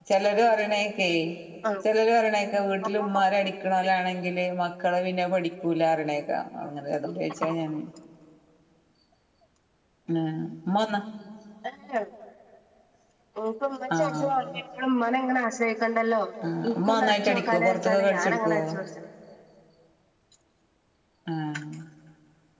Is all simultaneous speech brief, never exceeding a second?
No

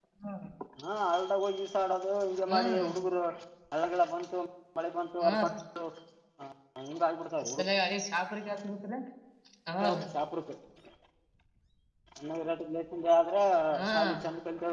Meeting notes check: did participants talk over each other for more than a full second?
No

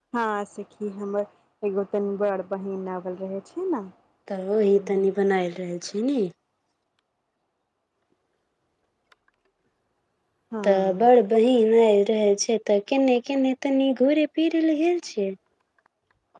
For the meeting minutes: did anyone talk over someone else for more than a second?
No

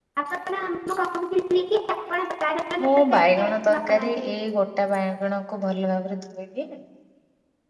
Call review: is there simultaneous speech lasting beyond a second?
Yes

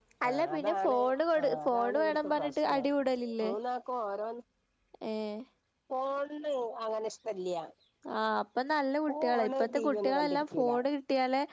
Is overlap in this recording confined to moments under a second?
No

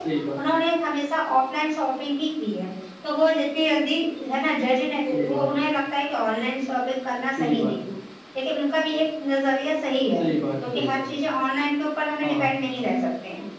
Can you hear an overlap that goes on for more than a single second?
No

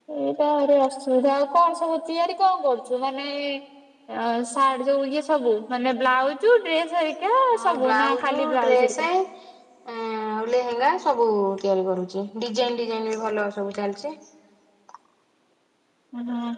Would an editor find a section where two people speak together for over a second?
Yes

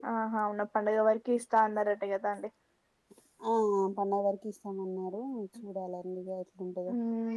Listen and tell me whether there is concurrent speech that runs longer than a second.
No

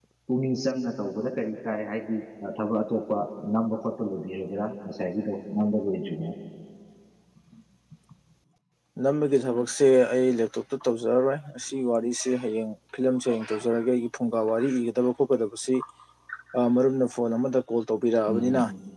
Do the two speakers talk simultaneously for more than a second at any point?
No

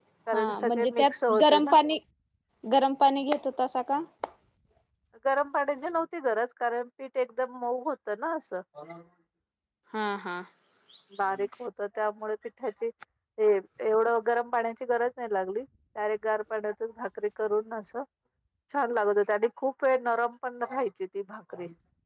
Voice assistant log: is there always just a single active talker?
No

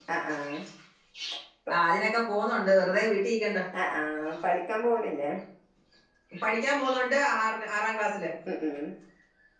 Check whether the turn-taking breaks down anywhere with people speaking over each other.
No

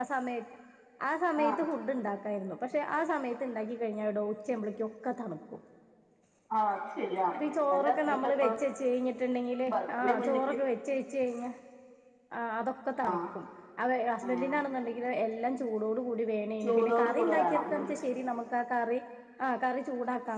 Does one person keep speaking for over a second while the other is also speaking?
Yes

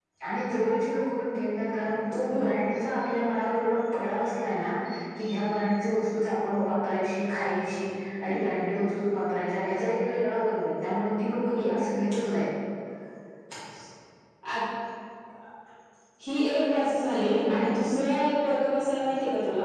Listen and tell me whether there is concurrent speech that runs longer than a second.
No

